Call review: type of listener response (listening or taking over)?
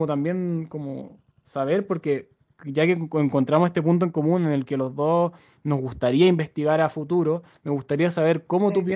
listening